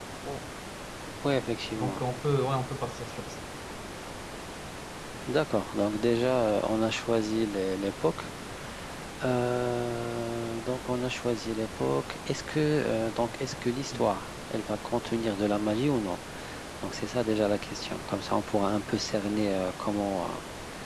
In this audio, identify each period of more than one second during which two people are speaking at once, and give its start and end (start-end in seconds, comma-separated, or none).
none